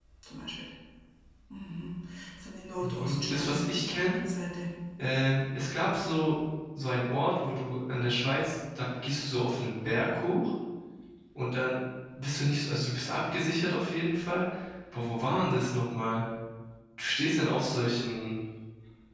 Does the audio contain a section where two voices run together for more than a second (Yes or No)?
Yes